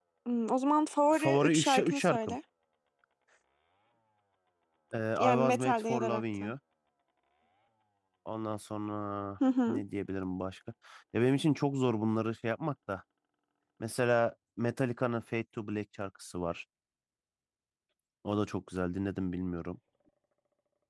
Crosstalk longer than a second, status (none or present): present